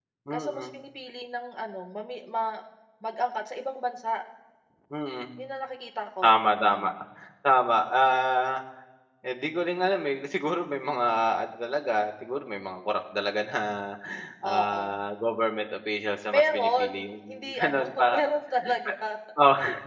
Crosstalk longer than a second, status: present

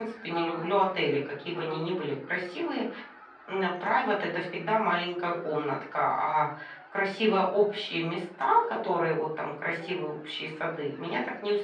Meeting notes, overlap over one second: none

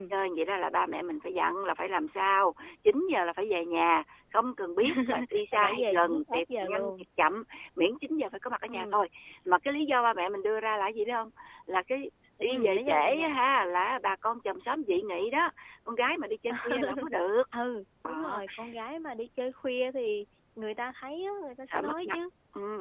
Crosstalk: present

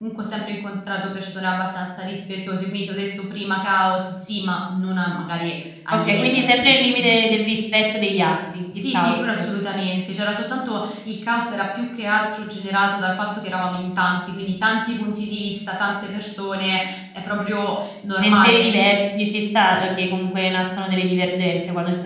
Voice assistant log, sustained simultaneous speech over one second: present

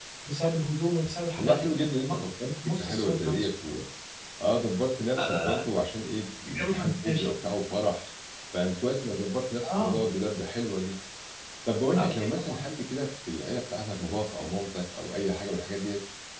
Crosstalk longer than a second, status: present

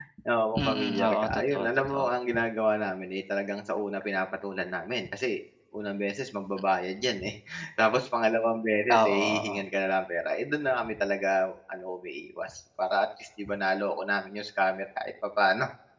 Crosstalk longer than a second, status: present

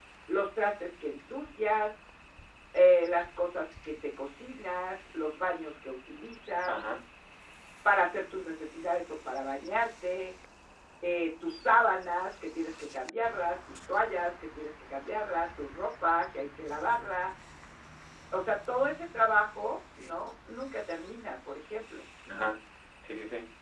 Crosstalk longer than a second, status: none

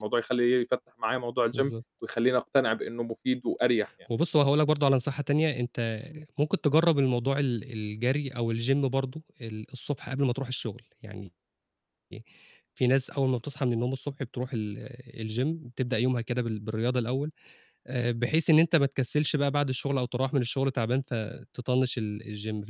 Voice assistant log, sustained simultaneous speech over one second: none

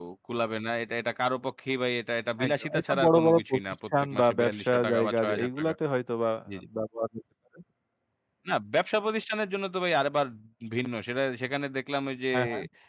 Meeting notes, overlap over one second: present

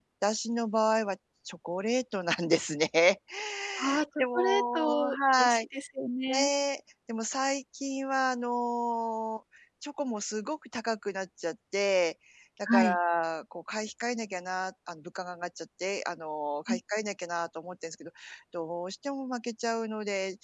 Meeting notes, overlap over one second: present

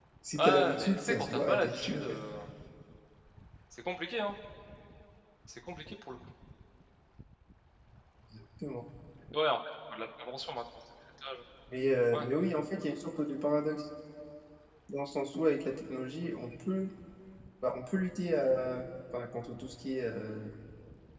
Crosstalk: present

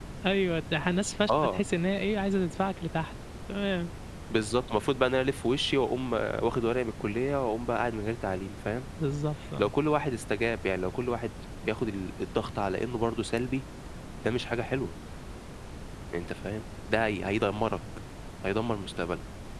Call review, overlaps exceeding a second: none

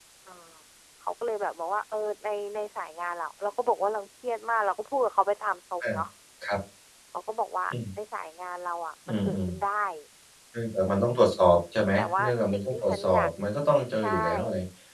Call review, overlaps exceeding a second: present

